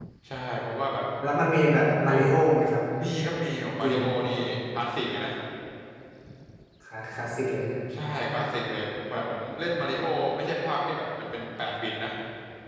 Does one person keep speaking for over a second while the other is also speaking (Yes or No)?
No